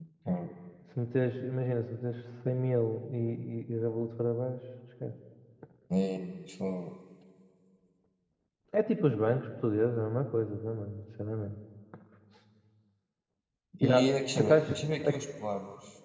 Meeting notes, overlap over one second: present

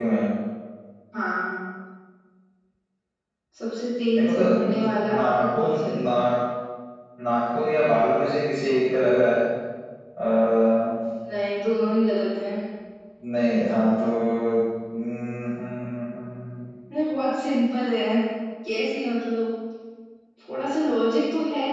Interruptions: present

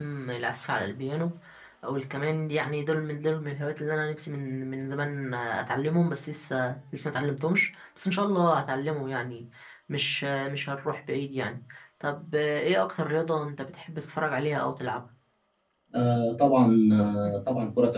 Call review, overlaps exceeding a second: none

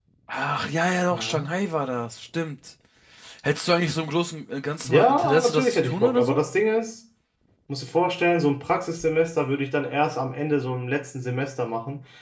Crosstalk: present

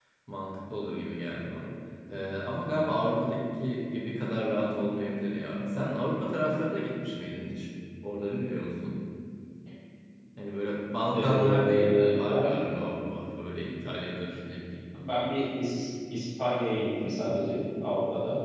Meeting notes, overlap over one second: present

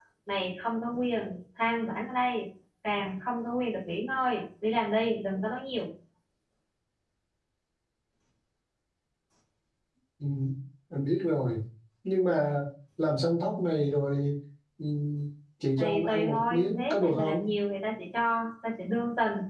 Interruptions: present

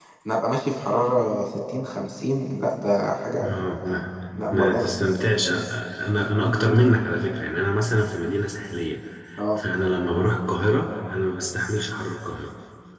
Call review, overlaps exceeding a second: none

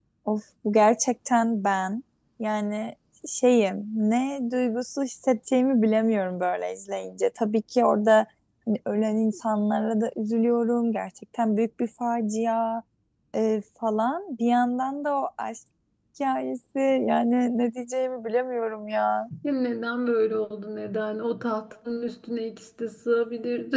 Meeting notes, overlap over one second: none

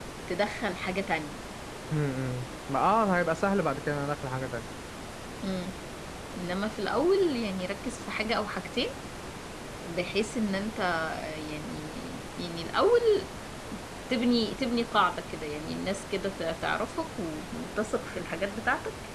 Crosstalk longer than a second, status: none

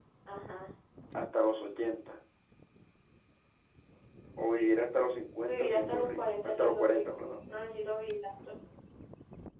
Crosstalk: present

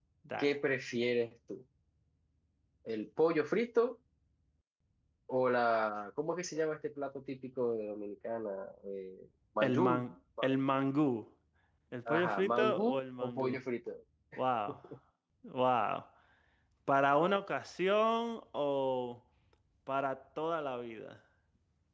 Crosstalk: present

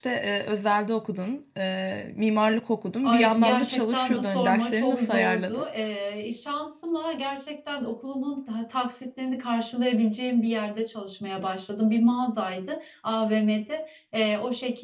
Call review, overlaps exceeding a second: present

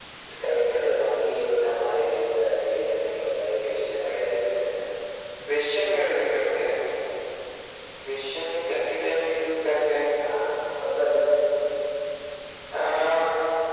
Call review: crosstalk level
none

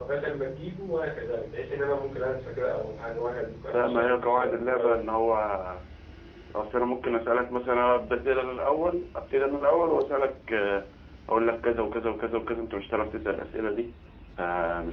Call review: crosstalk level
present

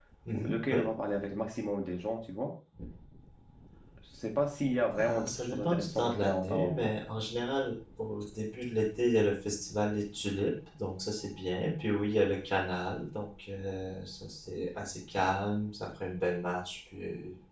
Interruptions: present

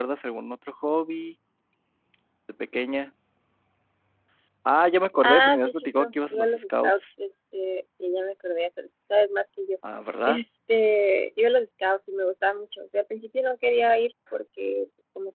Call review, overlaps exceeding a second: present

